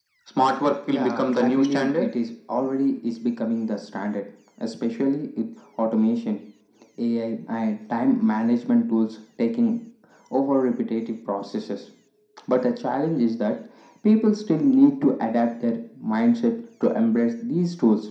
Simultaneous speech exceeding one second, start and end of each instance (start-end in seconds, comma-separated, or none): 0.9-2.1